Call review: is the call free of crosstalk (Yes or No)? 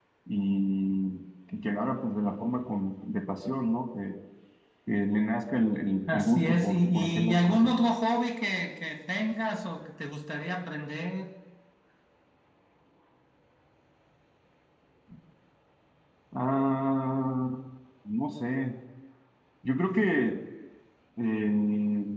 No